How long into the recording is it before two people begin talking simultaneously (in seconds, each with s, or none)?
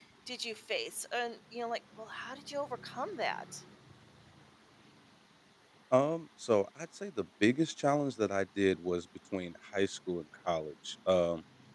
none